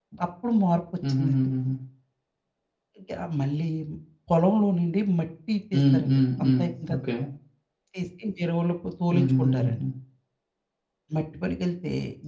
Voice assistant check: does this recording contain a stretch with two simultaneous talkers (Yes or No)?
Yes